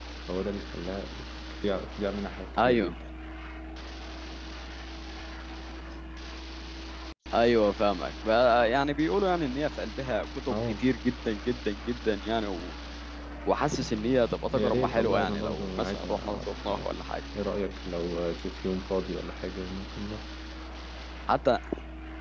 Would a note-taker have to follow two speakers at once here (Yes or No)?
Yes